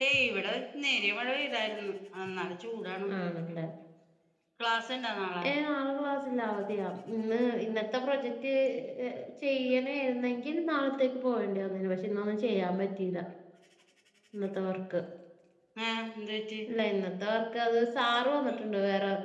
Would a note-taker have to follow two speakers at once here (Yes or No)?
No